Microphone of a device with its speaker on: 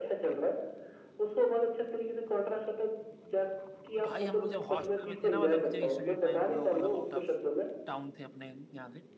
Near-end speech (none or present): present